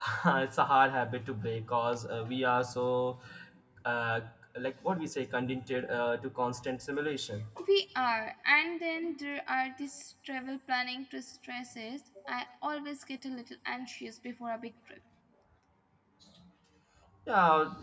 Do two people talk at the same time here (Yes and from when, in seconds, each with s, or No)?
No